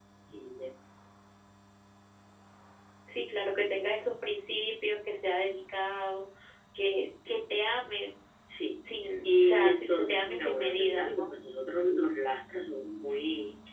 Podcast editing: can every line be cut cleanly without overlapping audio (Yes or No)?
No